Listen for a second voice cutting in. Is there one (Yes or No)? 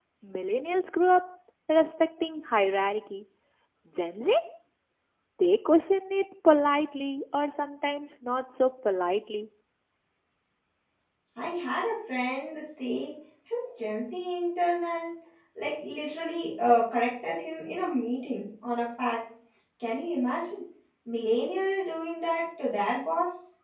No